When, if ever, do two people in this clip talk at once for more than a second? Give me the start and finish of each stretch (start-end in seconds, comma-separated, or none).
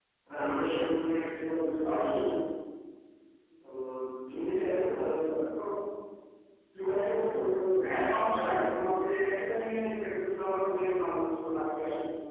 none